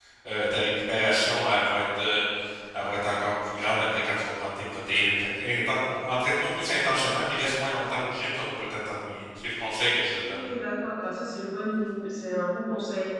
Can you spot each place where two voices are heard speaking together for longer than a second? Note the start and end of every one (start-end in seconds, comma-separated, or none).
none